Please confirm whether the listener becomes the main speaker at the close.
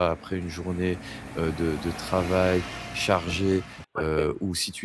No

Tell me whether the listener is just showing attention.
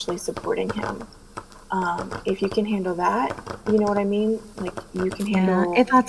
No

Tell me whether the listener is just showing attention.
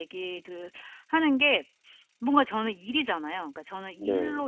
Yes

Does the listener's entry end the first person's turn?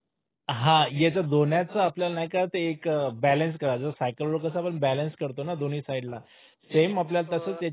No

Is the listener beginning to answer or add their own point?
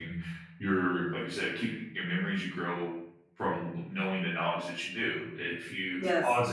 No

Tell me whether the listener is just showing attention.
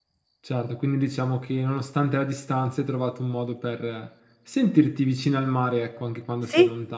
No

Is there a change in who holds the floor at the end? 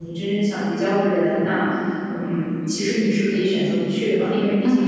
No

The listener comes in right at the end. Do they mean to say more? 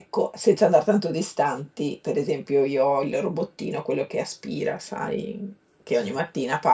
No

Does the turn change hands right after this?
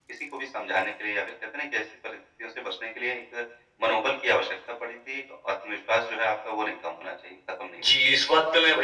Yes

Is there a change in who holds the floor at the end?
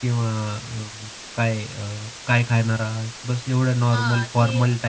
Yes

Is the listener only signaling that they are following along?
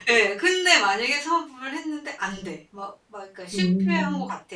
Yes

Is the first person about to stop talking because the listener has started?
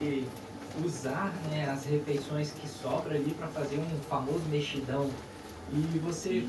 No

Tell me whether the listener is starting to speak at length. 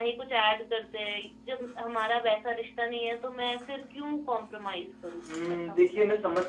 Yes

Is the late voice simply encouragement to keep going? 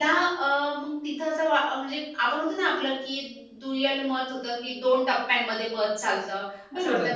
No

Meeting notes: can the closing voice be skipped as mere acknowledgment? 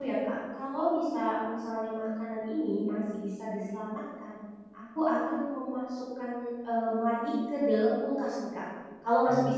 Yes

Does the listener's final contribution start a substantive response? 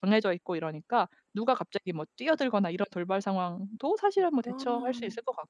No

